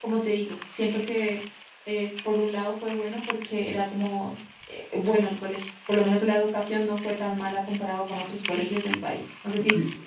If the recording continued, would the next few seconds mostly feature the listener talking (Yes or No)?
Yes